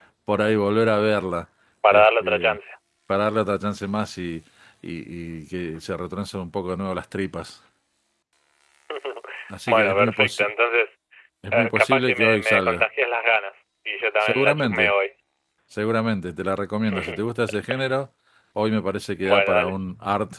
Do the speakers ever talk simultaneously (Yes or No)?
Yes